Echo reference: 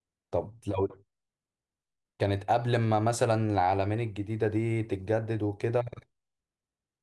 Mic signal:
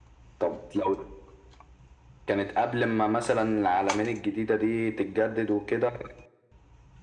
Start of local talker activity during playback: none

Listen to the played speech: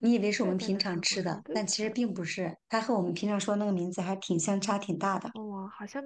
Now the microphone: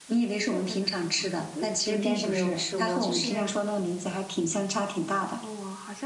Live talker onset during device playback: 1.8 s

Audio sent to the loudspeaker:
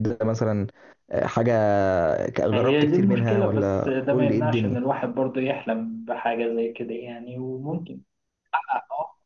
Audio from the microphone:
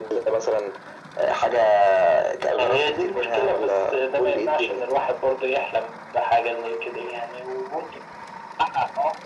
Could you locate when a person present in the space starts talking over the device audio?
none

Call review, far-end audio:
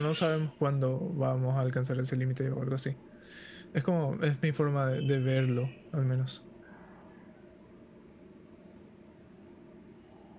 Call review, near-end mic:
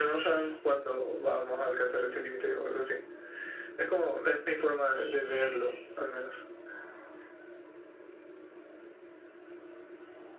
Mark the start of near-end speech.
none

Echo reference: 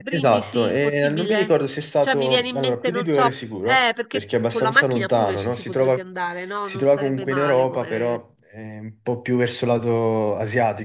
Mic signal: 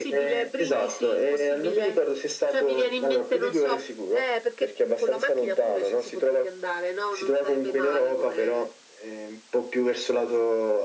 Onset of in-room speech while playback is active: none

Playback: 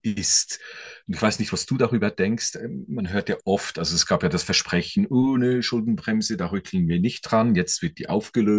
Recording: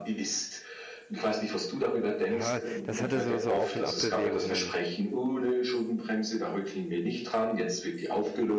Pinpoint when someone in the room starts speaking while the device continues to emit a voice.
2.3 s

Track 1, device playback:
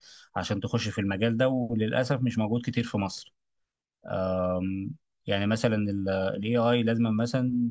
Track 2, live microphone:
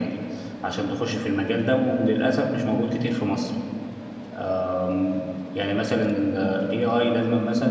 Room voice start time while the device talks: none

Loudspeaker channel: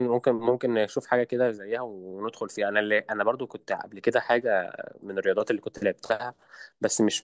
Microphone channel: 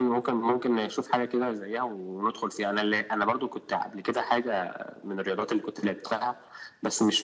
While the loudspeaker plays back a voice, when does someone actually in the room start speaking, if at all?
none

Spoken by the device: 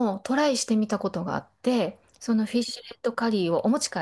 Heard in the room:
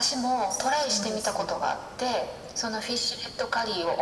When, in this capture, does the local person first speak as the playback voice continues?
0.5 s

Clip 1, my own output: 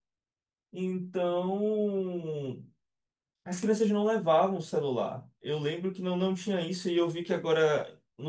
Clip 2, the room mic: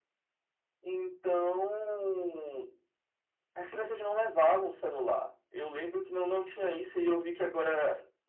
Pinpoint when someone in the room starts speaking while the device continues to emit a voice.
none

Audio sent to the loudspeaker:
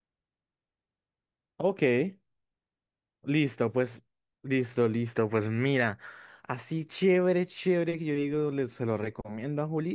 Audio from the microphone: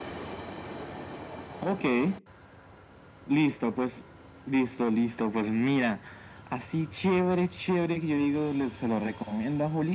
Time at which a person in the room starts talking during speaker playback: none

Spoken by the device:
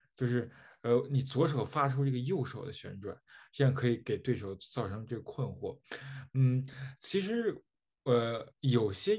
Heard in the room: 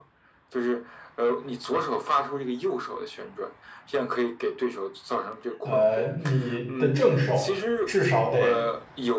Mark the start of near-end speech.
5.6 s

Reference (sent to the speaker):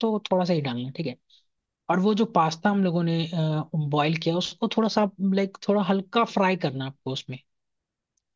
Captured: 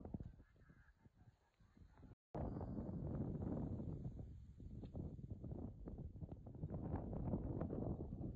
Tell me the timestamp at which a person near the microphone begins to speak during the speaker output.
none

